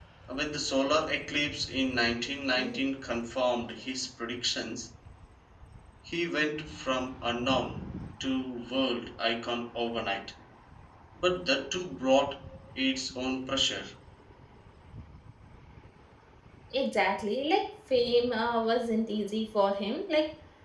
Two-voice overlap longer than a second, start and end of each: none

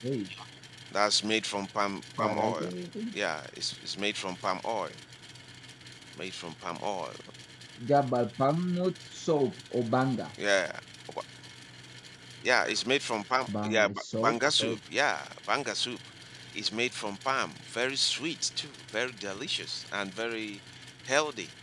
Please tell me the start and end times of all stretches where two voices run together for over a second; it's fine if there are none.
13.5-14.8

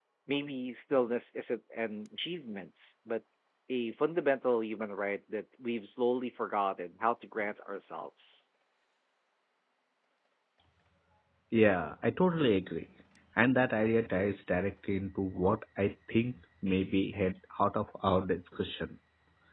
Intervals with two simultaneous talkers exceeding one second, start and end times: none

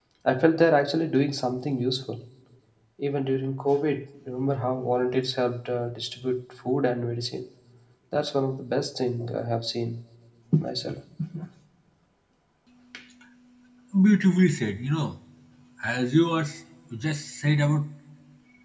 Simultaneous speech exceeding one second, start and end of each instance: none

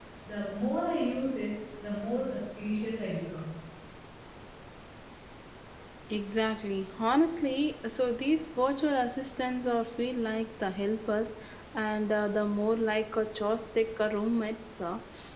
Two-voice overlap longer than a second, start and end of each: none

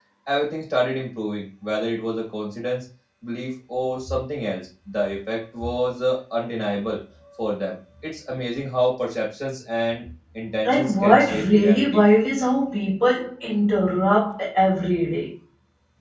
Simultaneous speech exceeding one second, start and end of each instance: 10.6-12.0

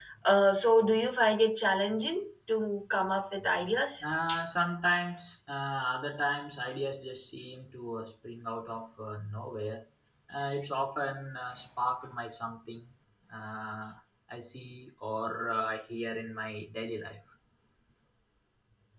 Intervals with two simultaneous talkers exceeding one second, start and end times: none

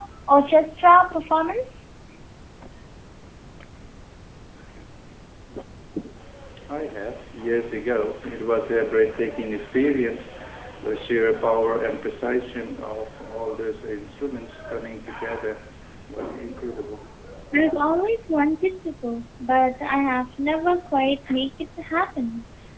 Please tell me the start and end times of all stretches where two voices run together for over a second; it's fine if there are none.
none

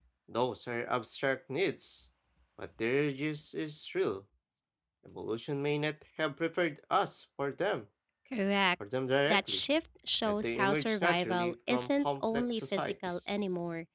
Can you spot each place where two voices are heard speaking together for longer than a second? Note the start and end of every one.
10.3-13.3

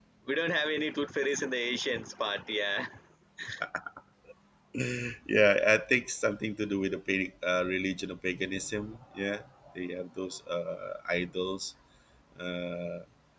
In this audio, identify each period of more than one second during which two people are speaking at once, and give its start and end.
none

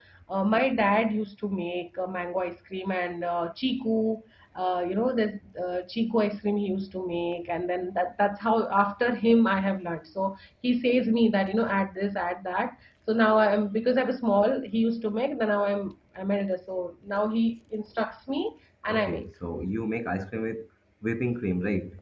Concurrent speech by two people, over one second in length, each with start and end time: none

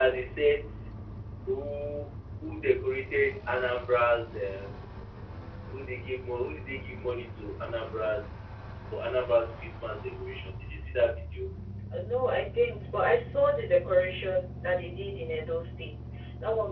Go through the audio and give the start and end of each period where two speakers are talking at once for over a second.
none

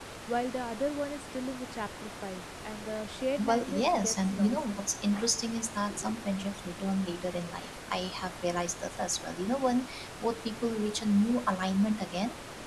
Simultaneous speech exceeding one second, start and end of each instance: 3.4-4.6

